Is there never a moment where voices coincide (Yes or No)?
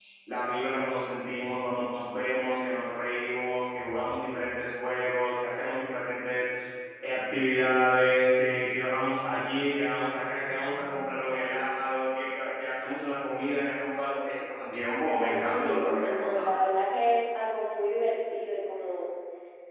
No